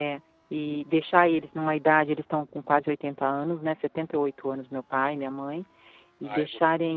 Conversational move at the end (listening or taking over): listening